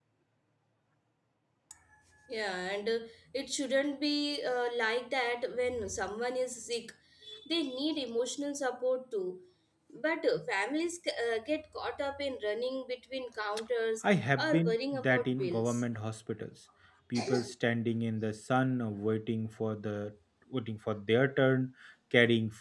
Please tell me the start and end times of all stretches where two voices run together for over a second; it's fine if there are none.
14.4-15.8

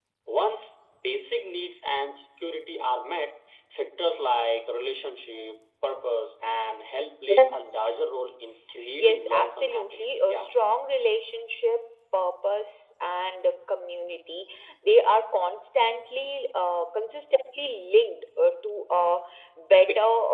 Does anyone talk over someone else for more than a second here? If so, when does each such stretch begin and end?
9.0-10.4

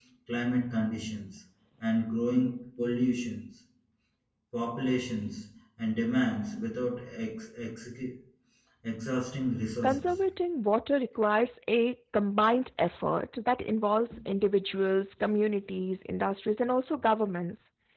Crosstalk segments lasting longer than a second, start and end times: none

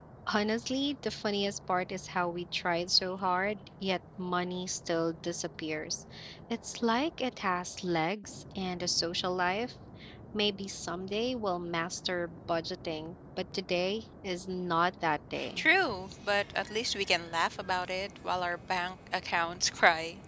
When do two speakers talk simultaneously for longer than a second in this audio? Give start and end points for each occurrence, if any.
none

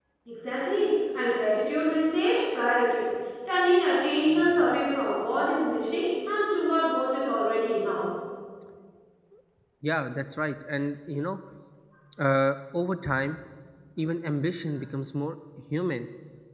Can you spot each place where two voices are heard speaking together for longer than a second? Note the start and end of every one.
none

